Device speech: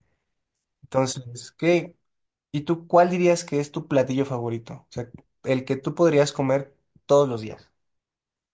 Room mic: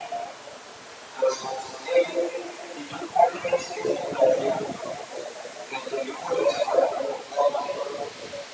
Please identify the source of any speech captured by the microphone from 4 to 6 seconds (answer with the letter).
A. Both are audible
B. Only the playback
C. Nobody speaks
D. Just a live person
B